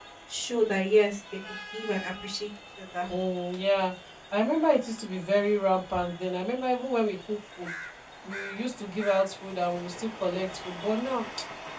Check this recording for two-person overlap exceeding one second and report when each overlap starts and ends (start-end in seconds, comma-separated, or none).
none